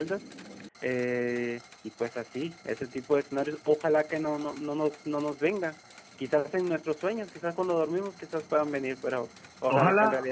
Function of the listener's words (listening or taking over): taking over